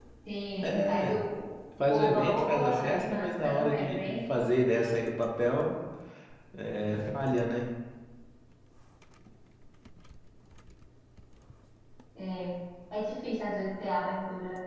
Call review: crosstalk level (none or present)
present